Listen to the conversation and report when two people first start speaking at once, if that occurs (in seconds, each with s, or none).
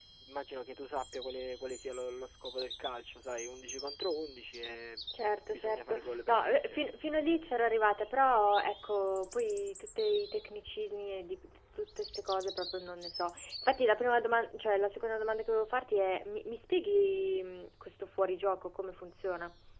5.5 s